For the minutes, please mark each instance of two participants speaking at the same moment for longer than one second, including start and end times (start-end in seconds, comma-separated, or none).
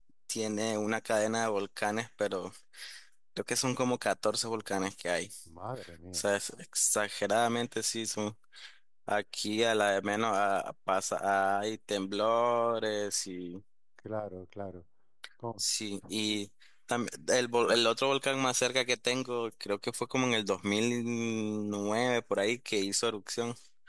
none